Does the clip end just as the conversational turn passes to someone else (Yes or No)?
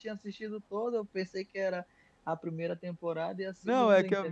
Yes